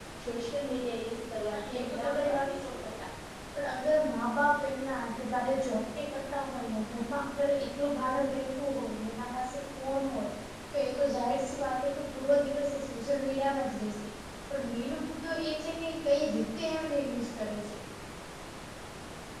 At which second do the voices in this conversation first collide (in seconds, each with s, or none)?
1.5 s